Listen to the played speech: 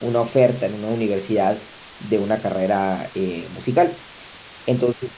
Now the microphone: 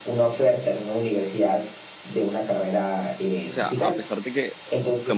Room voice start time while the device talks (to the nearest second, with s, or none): 3 s